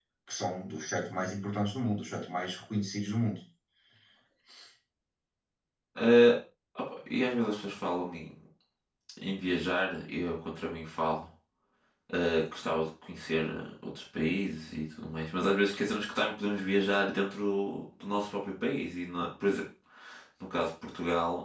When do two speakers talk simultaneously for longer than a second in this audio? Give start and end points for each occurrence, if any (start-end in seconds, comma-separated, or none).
none